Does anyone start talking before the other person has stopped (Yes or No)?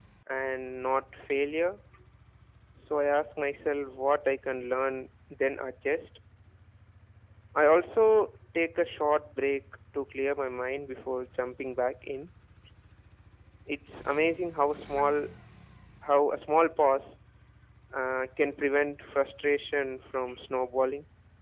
No